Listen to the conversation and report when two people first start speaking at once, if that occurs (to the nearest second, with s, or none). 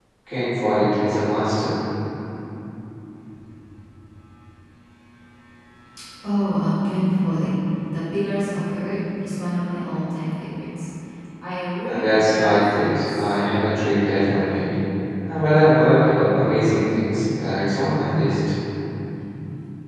12 s